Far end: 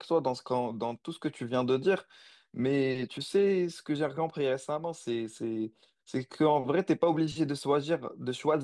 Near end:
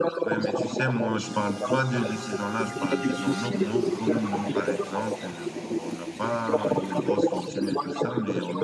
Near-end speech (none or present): present